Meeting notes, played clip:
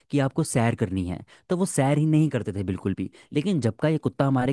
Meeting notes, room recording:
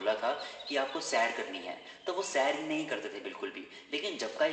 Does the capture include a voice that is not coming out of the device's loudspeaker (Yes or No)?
No